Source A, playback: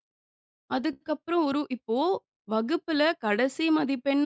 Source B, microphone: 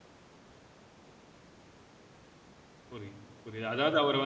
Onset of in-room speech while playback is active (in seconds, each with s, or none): 2.9 s